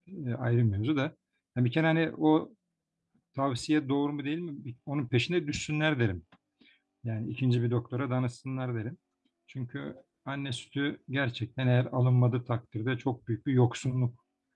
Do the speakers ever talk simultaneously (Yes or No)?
No